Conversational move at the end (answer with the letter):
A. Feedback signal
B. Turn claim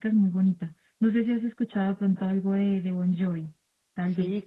B